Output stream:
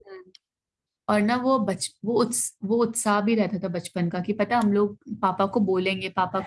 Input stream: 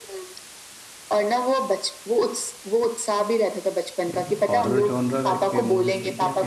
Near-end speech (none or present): present